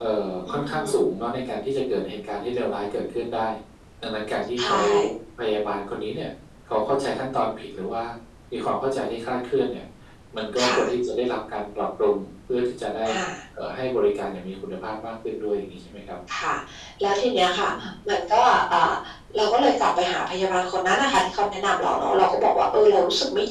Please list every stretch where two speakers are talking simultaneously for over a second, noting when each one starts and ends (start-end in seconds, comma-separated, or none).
none